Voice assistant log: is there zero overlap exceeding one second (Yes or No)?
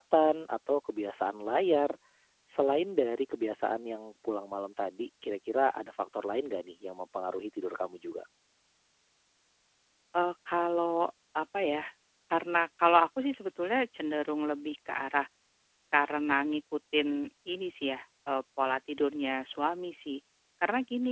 Yes